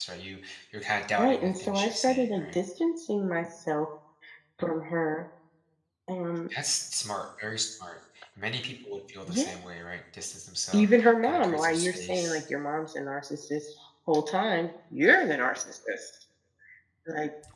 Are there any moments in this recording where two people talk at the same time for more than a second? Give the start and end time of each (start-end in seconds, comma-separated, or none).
1.2-2.6, 10.7-12.4